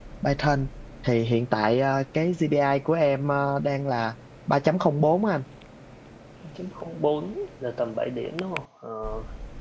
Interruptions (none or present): none